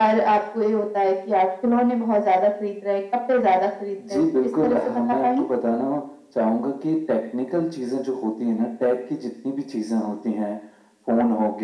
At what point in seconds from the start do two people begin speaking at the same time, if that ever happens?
4 s

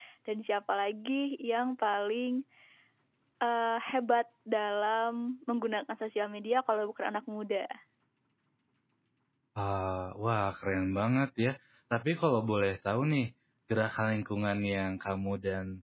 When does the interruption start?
none

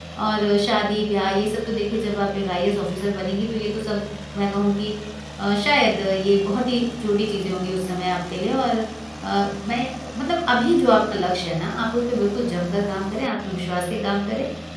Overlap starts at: none

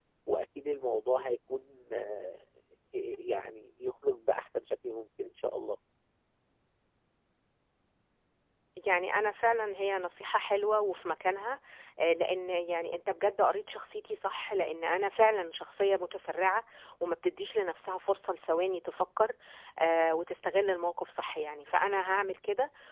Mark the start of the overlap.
none

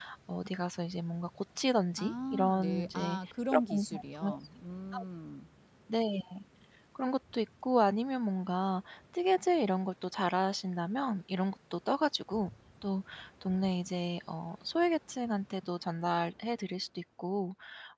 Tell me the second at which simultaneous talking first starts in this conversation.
2 s

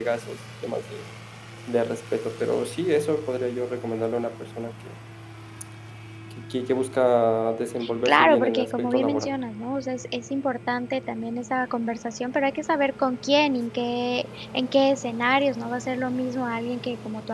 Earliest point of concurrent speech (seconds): 8 s

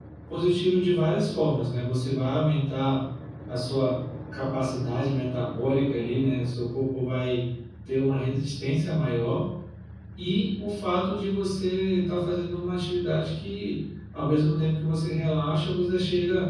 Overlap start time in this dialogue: none

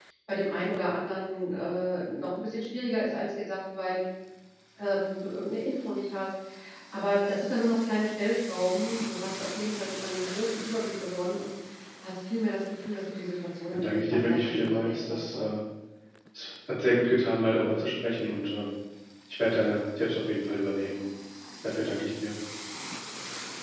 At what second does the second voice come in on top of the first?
14 s

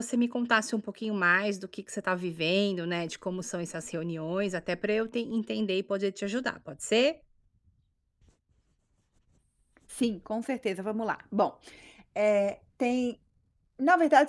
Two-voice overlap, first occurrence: none

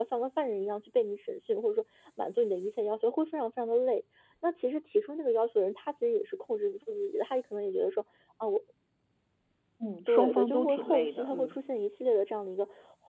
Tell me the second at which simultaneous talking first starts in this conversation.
10 s

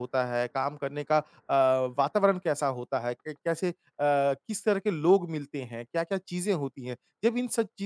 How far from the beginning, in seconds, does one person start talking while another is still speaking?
none

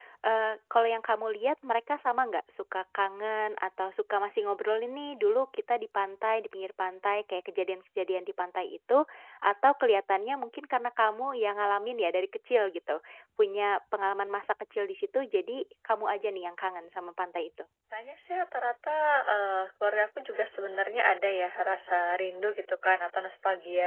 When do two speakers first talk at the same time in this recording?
none

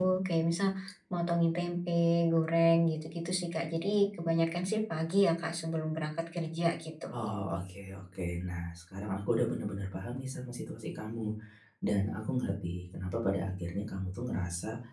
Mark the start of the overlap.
none

